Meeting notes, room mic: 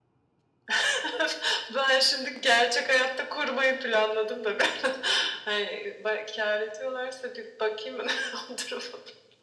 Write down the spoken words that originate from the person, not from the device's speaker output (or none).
none